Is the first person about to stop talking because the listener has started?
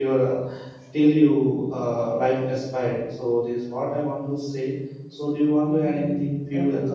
Yes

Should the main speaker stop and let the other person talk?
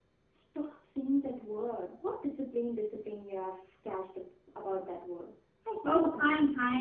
Yes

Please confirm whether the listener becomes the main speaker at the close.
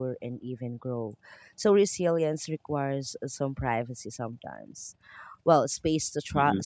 No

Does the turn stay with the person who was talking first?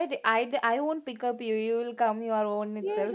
No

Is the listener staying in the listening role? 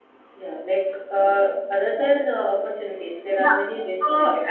No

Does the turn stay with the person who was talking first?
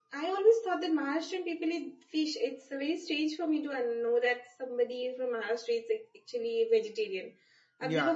No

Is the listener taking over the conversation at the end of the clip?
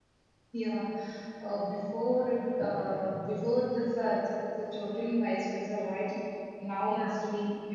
No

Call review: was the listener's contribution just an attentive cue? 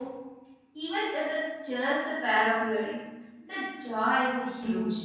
No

